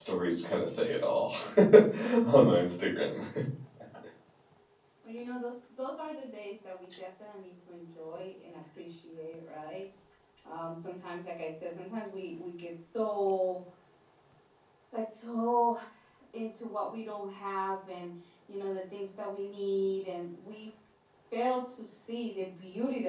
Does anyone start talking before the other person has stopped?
No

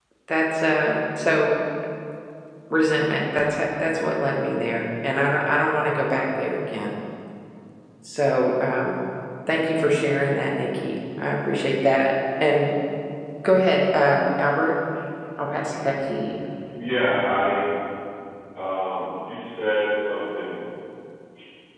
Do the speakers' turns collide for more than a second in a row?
No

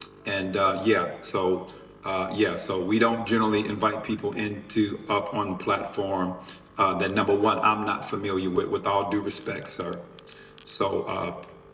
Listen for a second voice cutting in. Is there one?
No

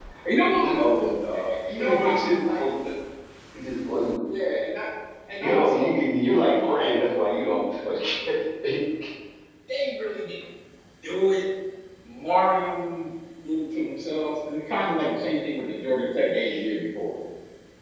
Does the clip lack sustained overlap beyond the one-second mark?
No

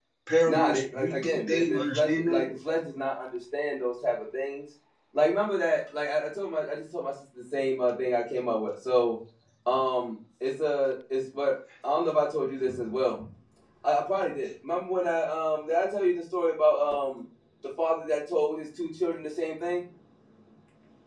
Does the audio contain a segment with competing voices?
Yes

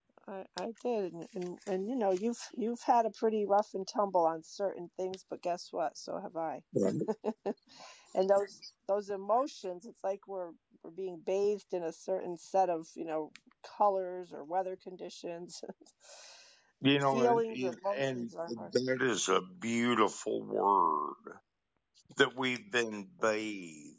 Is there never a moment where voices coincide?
No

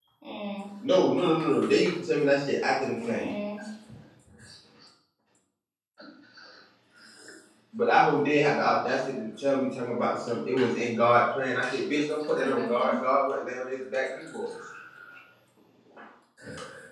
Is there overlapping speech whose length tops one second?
No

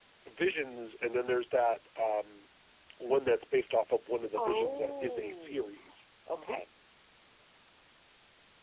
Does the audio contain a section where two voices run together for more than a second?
Yes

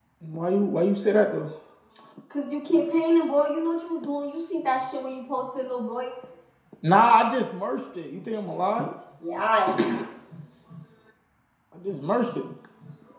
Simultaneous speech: No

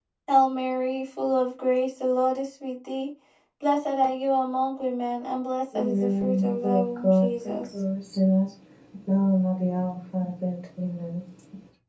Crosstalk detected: Yes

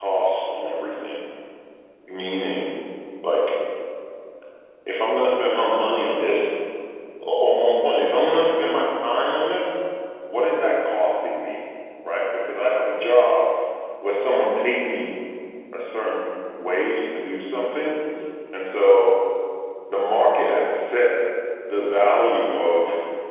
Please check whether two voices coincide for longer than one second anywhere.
No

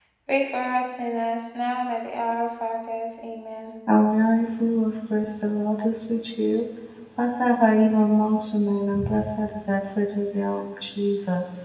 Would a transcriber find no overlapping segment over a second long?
Yes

